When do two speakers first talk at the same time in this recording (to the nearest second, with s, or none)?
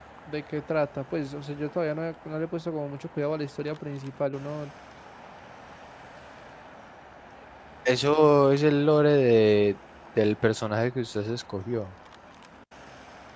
none